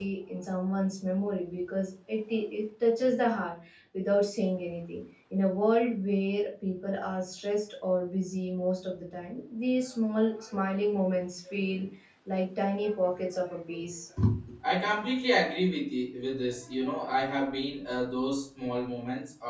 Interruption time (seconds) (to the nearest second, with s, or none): none